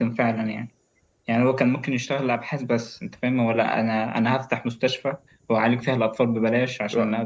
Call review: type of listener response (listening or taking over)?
listening